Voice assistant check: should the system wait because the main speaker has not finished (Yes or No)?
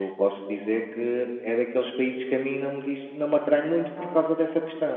Yes